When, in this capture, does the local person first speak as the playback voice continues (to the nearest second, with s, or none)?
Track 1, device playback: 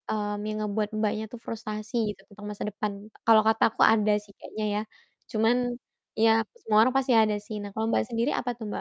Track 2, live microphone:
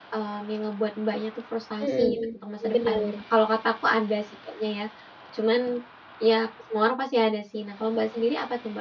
2 s